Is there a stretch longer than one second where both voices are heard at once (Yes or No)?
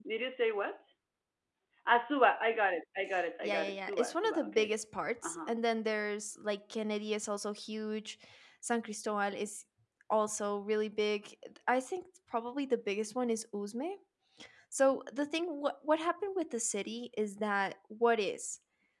Yes